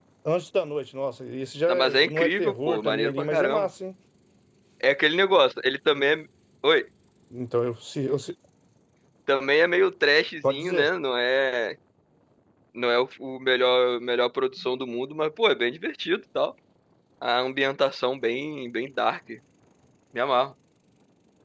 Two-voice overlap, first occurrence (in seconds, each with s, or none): 1.7 s